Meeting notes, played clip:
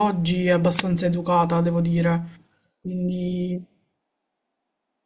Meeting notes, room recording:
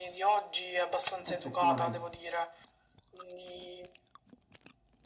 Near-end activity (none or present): present